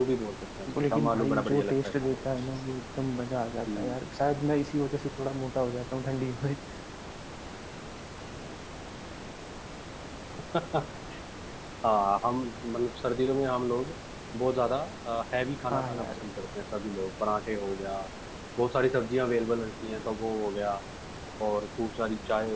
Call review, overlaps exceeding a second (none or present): present